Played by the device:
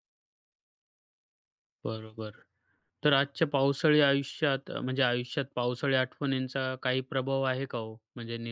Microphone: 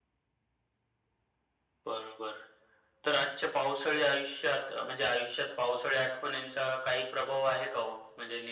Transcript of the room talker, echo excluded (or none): none